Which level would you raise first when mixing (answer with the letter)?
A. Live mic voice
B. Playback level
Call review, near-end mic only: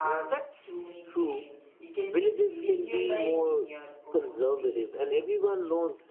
A